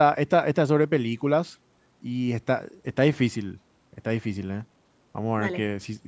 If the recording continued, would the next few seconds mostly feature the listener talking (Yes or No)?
No